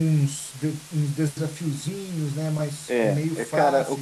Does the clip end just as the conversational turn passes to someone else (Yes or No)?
Yes